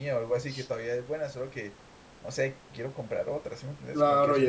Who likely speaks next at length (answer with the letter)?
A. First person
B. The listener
B